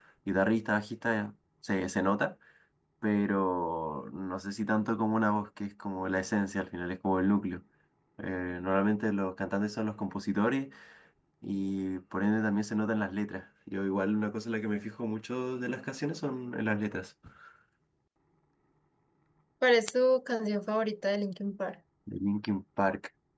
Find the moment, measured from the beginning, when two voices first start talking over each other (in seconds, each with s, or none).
none